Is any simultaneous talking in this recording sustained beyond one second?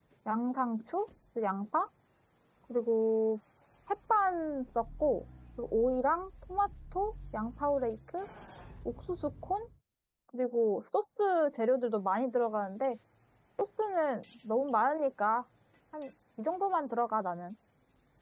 No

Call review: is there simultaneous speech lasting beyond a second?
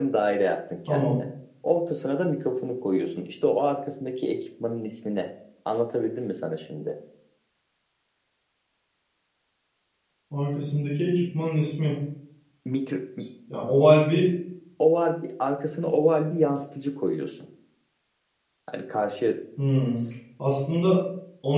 No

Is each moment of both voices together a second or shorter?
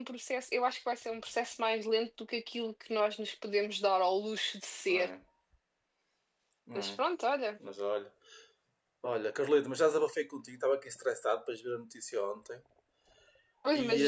Yes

